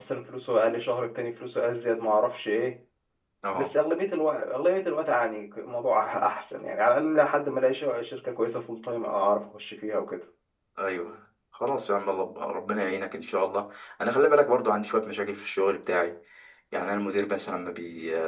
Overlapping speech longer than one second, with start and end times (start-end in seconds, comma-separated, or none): none